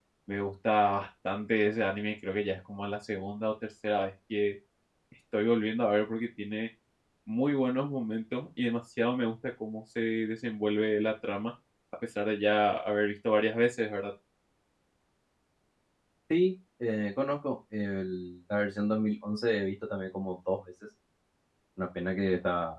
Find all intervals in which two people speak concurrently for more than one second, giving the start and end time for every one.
none

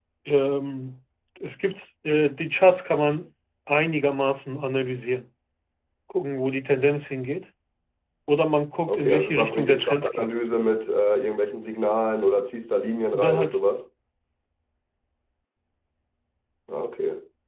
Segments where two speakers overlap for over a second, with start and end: 8.9-10.3

